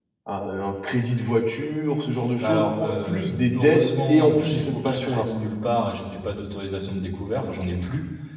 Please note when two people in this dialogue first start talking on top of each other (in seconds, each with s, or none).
2.4 s